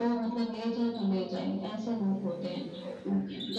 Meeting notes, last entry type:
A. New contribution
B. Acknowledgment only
A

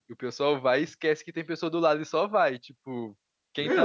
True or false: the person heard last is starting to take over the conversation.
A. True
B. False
A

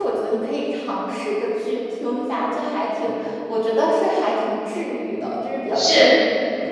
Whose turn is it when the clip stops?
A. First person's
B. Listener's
B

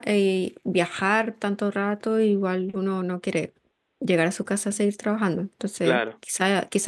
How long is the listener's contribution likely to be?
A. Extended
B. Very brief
B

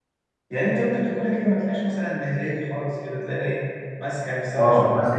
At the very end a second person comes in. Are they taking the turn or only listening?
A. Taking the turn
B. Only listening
A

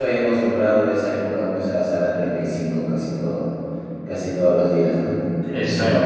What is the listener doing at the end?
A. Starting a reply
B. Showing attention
A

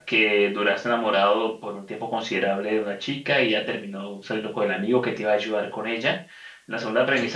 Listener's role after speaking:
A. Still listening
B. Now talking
A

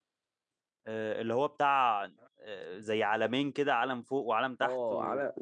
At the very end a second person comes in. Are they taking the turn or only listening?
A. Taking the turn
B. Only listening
A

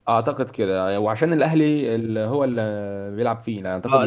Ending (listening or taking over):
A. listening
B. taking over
B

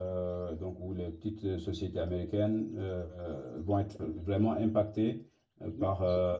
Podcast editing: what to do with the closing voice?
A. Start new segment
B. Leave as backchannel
A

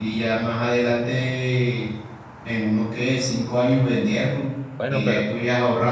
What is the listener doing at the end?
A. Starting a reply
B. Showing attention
B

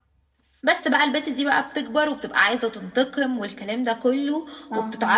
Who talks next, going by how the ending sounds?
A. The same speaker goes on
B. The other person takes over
A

